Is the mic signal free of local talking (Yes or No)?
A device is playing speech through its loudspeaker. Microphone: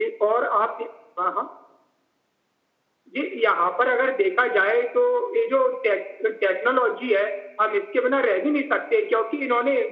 Yes